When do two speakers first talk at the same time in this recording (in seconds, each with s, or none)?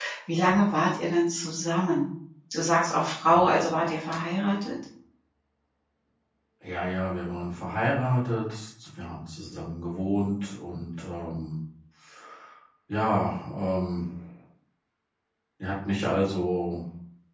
none